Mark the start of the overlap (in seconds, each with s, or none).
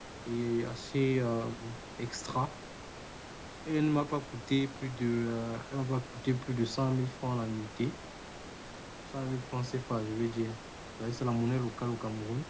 none